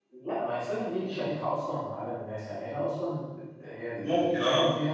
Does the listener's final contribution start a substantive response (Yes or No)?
No